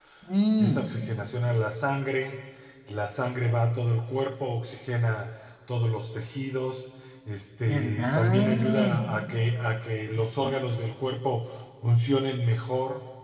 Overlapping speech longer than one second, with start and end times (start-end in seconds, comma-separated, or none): 7.7-8.9